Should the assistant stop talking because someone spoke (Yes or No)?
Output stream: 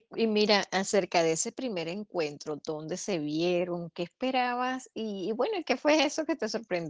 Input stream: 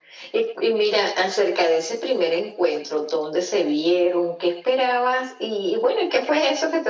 No